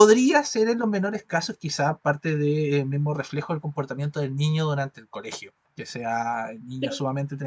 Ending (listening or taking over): listening